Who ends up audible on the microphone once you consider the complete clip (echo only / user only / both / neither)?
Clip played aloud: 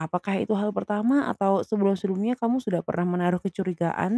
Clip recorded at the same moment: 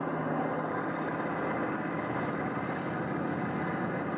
neither